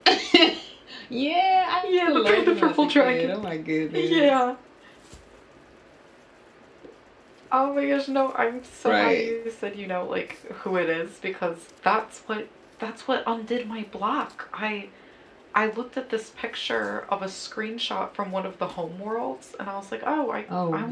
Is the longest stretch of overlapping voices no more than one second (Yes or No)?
No